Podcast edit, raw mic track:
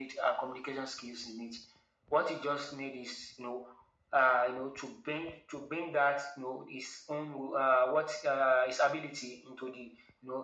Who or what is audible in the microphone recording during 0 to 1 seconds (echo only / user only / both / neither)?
echo only